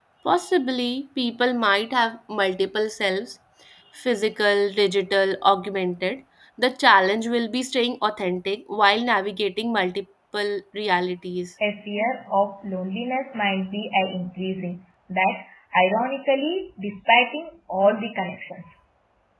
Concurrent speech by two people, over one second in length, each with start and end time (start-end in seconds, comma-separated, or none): none